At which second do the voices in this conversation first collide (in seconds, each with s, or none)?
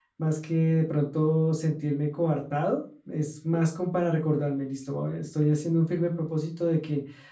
none